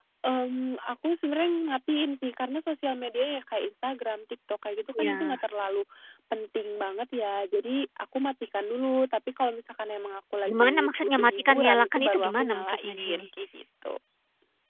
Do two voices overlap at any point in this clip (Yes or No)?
Yes